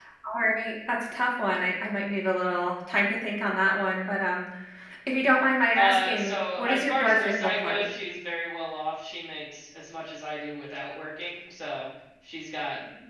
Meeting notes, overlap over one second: present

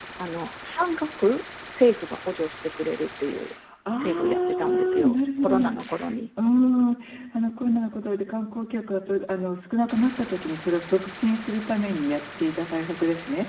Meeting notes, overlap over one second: present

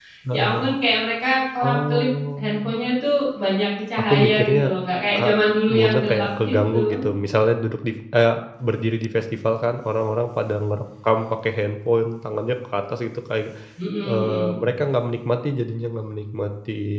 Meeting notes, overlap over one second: present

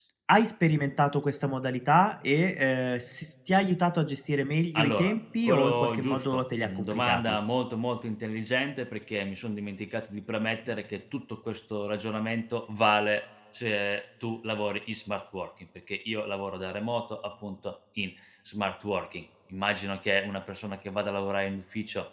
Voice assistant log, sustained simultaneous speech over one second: present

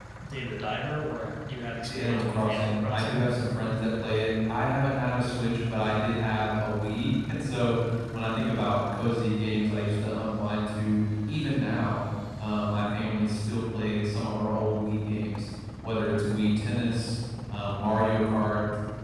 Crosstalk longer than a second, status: present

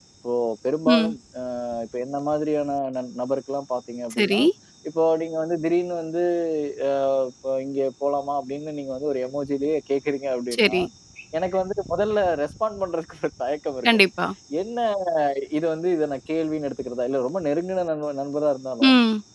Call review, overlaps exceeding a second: none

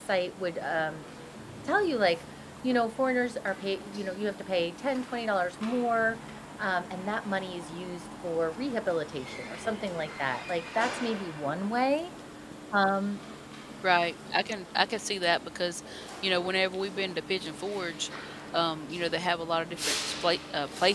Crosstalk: none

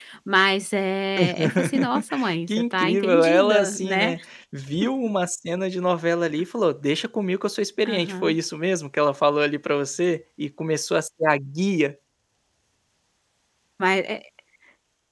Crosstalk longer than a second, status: present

